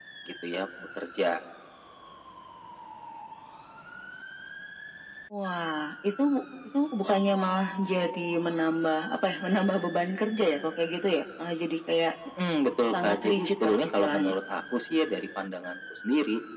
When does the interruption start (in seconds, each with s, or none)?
12.9 s